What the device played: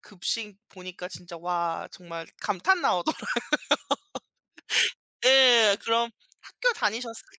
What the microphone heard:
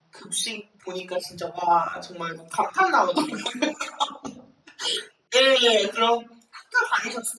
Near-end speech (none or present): none